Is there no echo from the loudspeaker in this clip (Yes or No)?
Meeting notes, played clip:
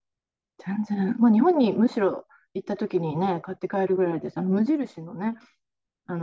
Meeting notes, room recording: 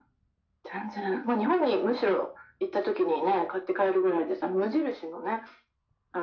No